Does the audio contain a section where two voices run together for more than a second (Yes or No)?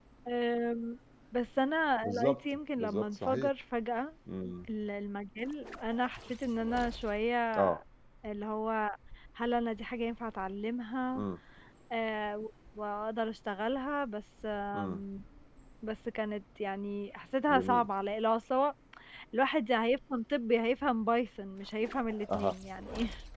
Yes